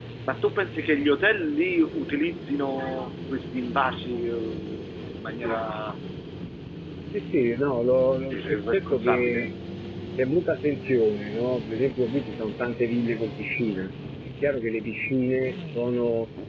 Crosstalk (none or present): present